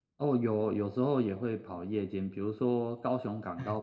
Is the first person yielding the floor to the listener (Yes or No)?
No